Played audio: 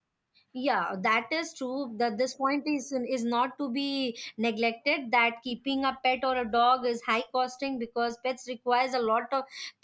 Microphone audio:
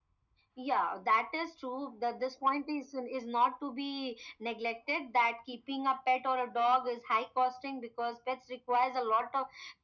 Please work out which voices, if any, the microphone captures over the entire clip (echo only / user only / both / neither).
echo only